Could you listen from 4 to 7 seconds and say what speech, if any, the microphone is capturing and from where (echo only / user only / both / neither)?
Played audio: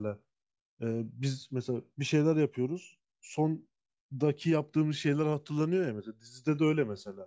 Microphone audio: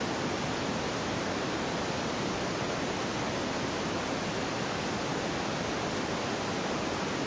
neither